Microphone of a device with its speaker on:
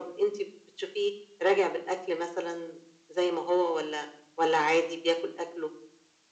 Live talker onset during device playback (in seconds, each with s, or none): none